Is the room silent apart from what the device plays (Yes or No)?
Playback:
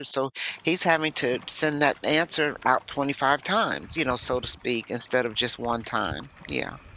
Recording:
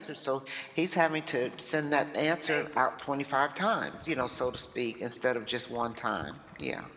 No